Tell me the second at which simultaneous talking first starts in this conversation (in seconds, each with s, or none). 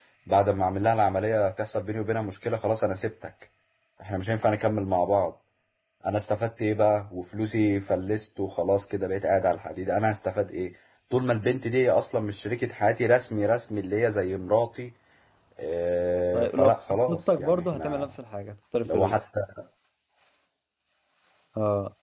16.3 s